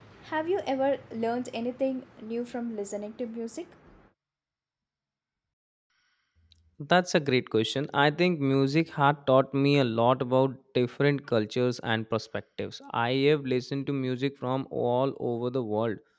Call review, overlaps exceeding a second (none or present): none